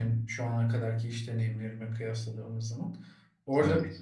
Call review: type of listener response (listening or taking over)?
listening